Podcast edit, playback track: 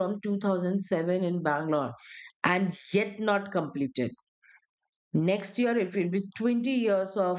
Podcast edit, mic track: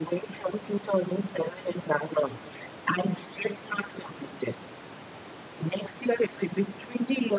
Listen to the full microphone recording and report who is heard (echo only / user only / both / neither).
echo only